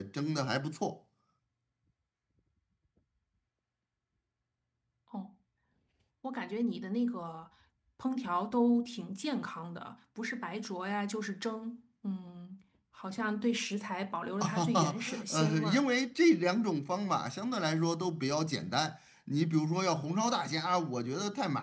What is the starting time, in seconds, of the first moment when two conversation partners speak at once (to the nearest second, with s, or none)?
14 s